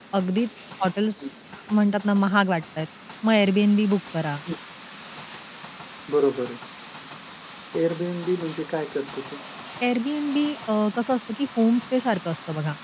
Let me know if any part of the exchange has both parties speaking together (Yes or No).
No